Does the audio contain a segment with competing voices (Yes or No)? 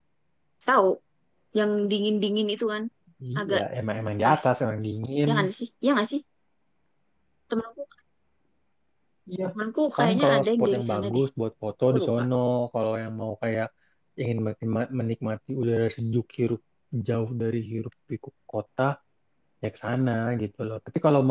Yes